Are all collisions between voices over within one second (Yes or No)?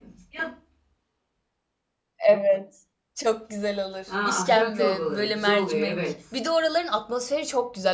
No